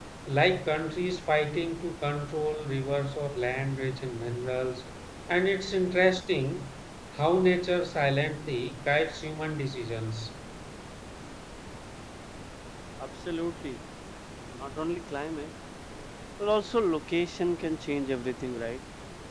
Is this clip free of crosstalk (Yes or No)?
Yes